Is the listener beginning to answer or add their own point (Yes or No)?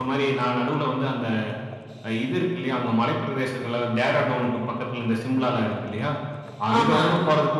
No